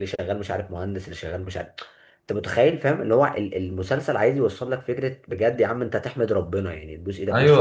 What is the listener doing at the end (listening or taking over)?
taking over